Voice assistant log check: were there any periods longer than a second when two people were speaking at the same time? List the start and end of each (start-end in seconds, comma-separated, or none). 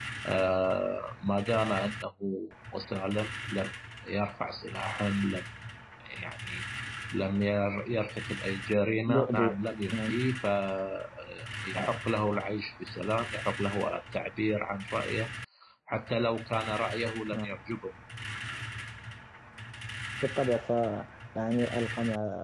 none